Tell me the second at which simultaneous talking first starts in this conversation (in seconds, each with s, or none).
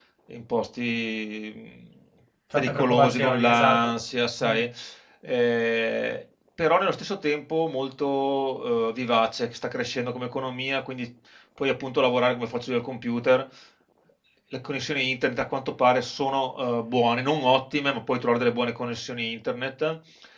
2.5 s